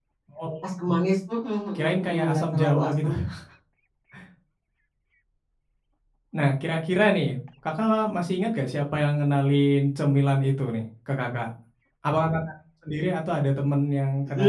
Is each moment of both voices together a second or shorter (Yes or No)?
No